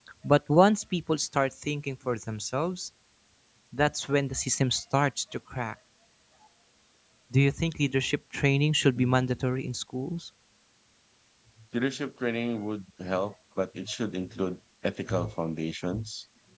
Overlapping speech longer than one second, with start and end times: none

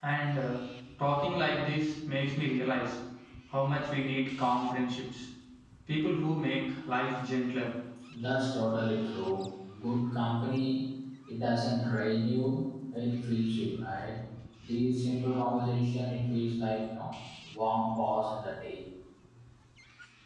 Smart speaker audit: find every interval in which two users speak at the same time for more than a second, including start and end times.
none

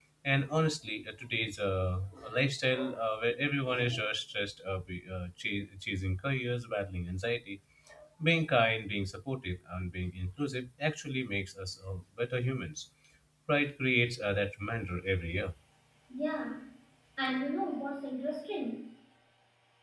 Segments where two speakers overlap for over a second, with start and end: none

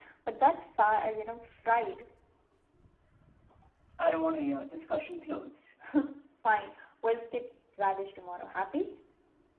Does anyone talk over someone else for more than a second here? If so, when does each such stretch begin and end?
none

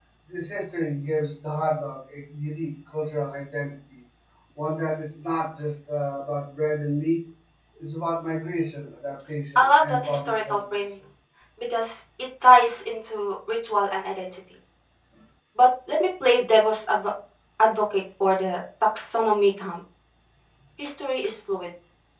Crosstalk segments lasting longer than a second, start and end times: 9.6-10.8

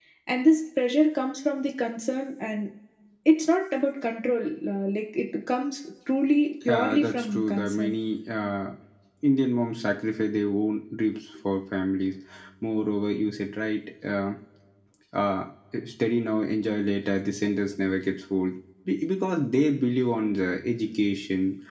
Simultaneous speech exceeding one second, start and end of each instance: 6.6-7.9

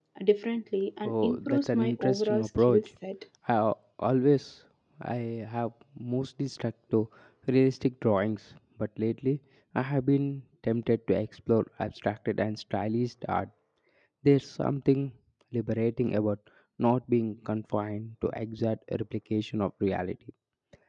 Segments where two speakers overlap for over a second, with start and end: 1.0-2.9

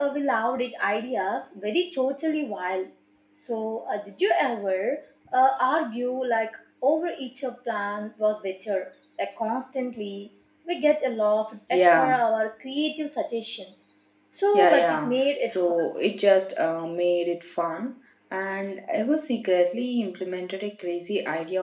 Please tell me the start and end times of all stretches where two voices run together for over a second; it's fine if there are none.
14.5-15.8

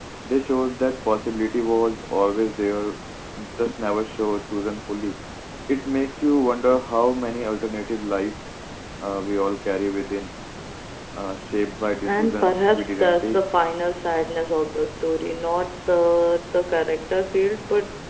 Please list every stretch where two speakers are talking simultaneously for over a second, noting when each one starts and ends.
12.1-13.4

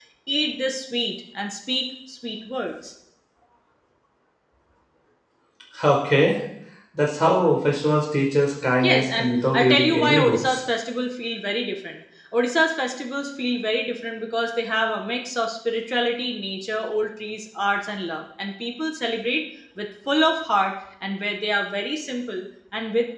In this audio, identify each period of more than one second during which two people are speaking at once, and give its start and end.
8.8-10.6

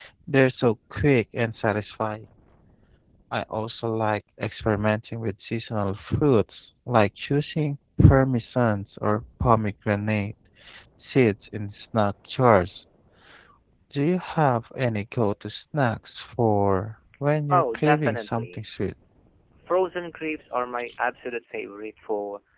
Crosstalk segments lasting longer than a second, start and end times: 17.5-18.7

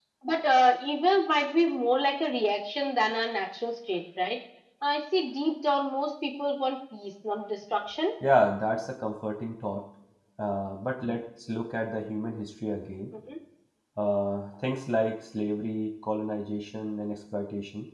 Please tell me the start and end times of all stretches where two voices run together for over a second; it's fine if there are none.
none

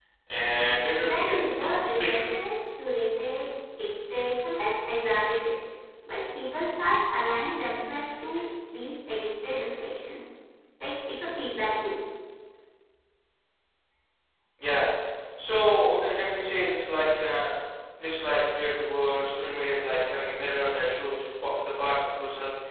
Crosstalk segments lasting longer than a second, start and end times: 0.9-2.4

